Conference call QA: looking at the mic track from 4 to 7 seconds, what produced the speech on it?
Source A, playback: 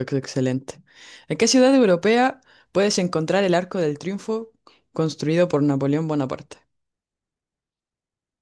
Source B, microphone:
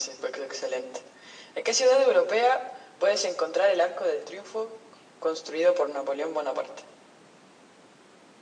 echo only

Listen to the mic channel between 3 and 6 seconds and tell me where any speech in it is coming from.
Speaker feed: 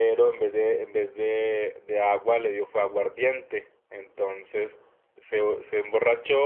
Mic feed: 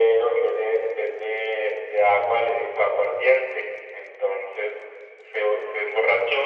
echo only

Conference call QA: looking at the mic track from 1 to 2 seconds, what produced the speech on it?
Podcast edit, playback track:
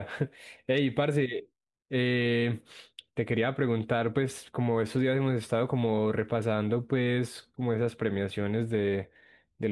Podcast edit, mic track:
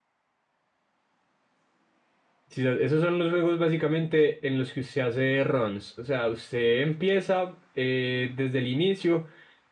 neither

